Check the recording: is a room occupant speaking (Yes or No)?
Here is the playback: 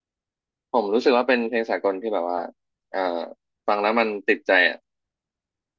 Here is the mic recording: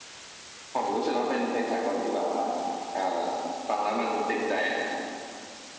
No